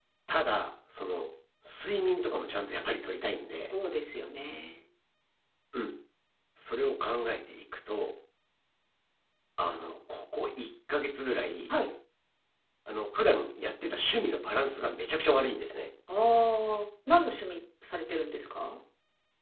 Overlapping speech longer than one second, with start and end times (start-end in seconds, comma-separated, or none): none